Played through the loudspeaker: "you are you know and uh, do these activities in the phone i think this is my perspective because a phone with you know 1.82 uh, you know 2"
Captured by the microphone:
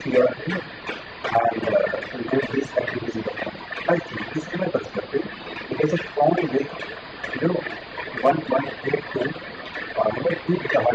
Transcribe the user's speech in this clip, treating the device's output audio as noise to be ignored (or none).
none